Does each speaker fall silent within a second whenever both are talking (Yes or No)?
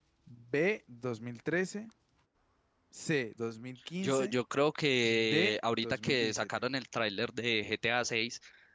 No